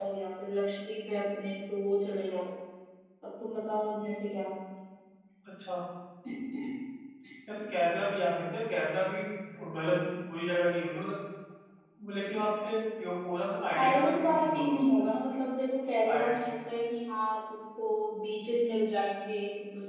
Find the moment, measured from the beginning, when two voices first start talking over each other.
13.7 s

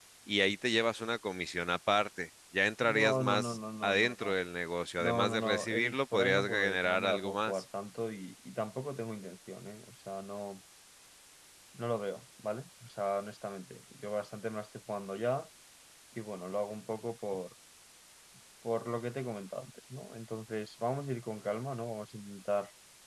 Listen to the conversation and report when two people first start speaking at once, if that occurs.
2.8 s

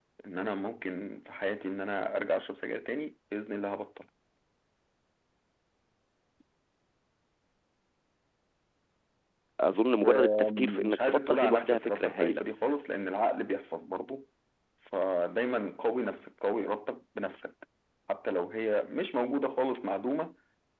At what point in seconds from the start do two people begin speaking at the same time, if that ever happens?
10.0 s

